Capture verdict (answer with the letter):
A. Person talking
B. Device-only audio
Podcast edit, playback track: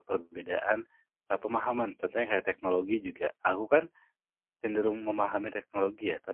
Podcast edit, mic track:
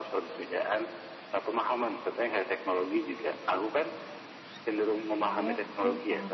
A